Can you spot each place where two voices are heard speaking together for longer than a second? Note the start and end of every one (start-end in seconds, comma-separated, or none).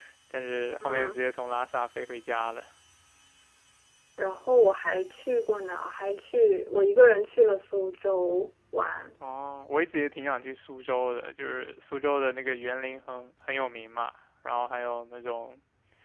none